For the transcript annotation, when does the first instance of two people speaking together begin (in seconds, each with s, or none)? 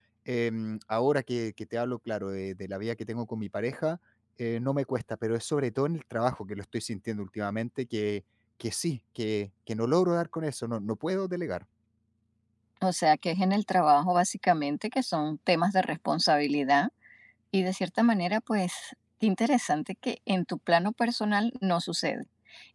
none